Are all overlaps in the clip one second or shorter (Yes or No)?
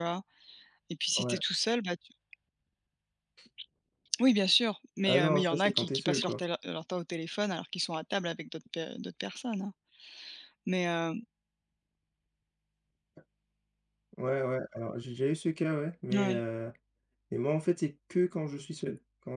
No